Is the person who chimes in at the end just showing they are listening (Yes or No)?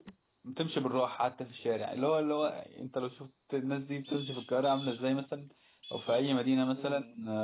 Yes